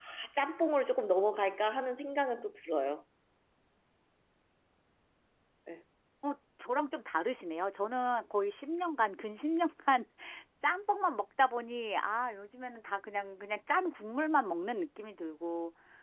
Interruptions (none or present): none